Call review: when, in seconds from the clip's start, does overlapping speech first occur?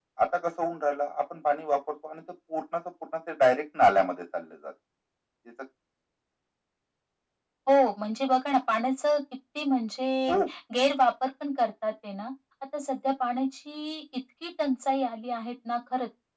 none

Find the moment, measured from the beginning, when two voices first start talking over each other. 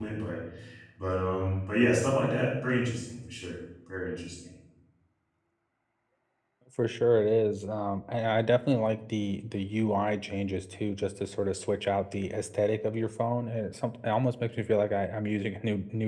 none

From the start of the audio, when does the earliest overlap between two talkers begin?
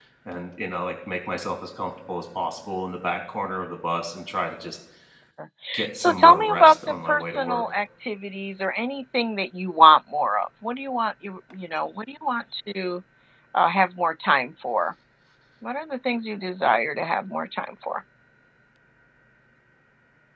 5.9 s

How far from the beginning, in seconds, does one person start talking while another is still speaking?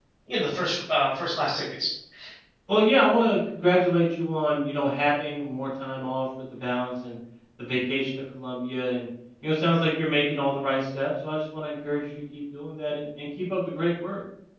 none

